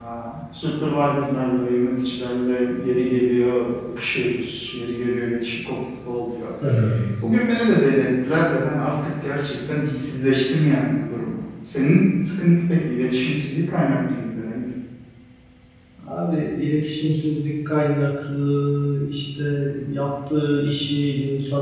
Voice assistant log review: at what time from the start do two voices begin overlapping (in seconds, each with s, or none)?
none